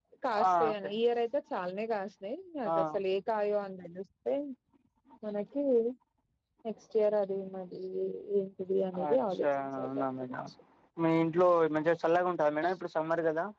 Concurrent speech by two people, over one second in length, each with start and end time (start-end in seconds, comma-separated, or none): 9.1-10.3